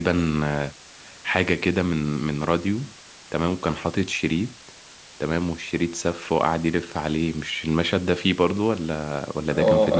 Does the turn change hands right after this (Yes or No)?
Yes